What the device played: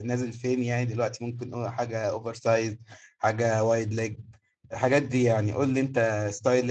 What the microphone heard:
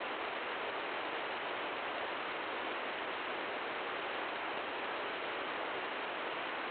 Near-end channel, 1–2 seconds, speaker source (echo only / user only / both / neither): neither